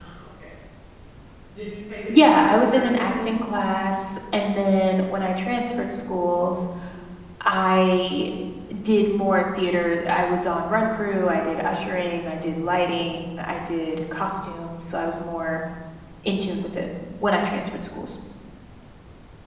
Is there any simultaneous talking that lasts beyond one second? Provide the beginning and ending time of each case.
2.1-3.3

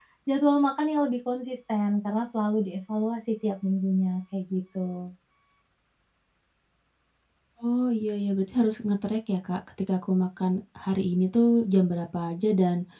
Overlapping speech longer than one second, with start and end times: none

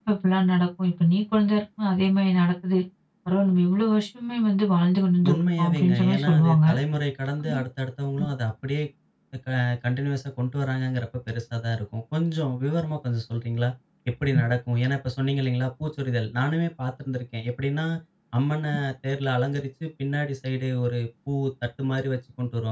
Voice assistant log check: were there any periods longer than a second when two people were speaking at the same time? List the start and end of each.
5.3-6.6

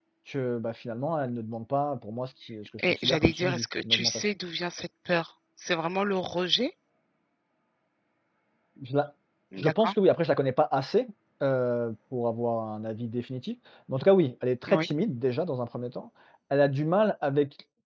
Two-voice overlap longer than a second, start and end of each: 2.9-4.3

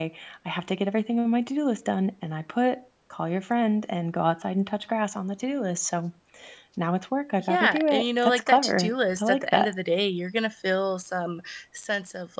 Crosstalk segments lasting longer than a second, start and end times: 7.5-9.7

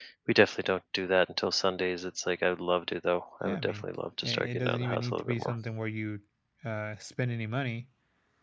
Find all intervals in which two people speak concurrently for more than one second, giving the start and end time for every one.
4.2-5.5

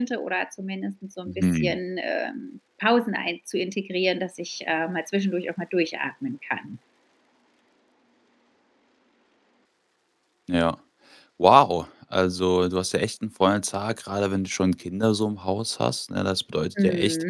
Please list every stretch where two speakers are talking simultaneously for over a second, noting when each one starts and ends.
none

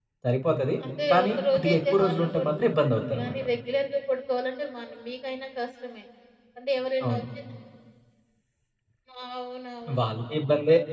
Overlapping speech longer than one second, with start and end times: 1.1-3.4

